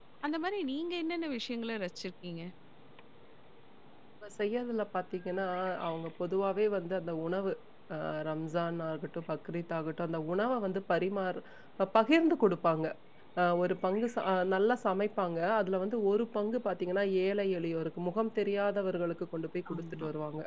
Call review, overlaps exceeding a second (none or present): none